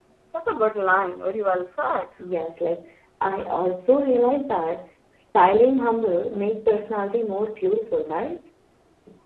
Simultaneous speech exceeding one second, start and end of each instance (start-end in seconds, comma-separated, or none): none